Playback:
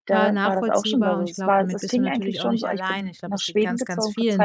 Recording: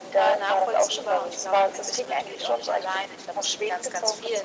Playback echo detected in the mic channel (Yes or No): Yes